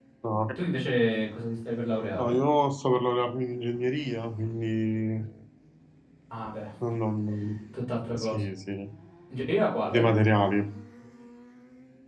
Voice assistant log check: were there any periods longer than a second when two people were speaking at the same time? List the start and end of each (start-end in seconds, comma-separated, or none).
none